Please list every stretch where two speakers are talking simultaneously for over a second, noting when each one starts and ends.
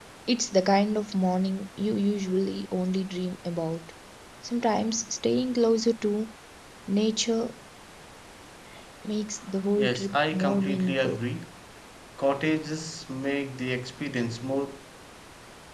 9.8-11.2

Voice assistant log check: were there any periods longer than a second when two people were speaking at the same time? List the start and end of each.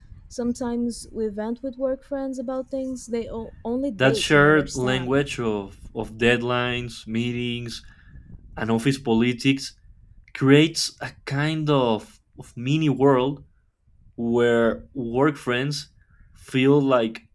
4.0-5.2

